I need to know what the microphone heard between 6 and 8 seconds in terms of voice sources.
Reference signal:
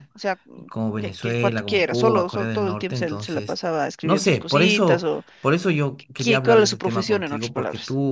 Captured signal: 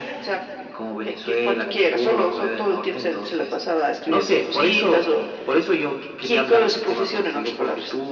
echo only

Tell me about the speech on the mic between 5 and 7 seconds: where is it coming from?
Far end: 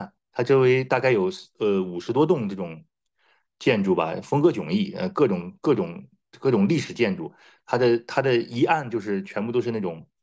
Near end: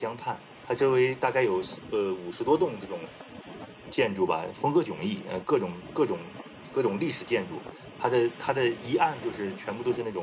echo only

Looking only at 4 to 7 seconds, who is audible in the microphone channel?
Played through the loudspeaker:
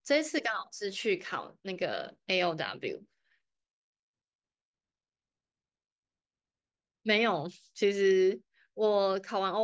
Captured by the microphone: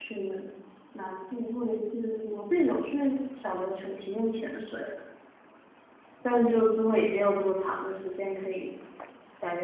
user only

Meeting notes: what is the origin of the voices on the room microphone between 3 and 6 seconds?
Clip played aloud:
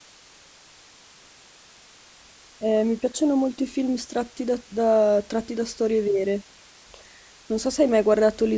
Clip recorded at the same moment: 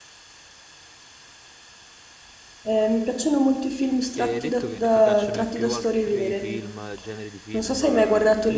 both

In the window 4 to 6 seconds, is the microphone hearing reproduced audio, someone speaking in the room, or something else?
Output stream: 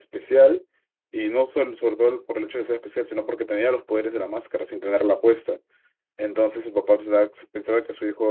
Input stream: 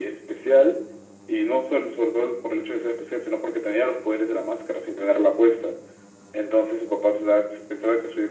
echo only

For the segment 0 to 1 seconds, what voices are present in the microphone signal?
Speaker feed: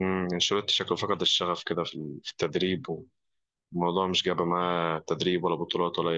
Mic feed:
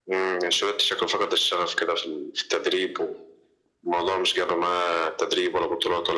echo only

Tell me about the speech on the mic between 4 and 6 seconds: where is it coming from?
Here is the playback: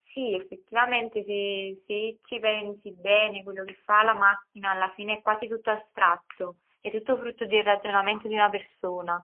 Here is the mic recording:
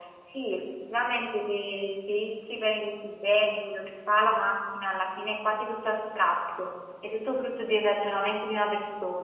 echo only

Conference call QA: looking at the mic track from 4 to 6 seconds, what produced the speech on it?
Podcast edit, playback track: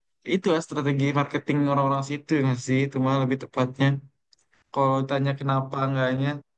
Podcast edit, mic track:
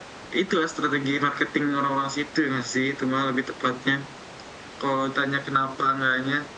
echo only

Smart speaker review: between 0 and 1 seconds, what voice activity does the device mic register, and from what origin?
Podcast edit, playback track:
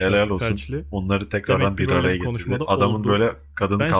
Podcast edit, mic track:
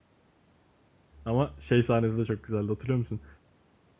neither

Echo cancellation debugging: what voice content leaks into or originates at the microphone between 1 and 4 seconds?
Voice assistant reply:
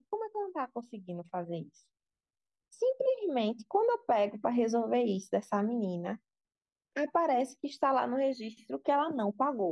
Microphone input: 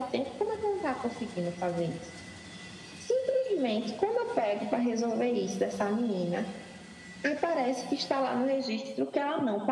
echo only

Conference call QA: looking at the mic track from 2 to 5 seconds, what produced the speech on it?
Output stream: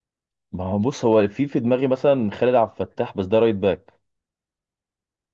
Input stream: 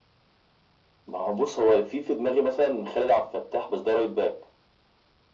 echo only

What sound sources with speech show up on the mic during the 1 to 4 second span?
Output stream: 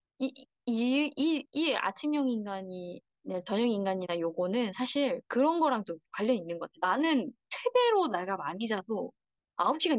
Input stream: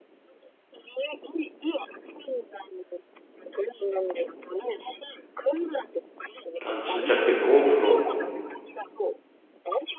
echo only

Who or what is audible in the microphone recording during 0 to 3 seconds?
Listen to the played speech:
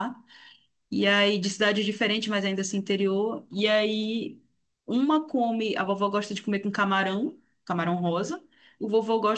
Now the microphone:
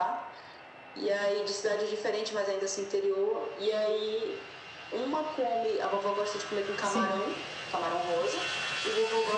echo only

